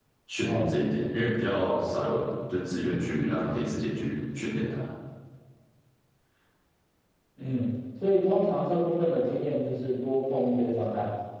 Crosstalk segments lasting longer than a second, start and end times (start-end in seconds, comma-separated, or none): none